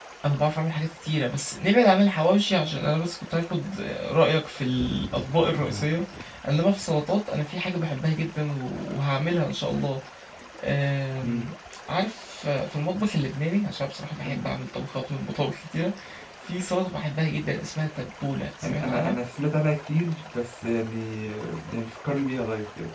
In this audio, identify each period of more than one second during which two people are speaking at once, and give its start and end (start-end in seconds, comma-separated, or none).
none